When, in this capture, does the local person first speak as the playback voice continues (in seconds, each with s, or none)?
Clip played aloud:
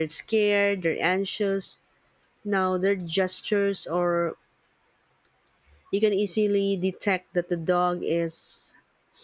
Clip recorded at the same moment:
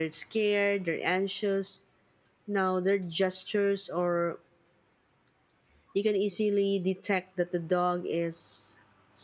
none